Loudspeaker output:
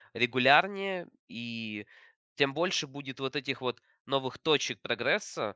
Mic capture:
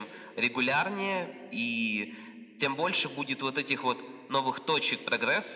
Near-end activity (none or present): none